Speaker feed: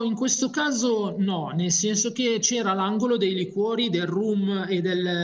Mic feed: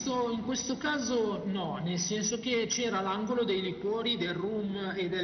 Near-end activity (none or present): none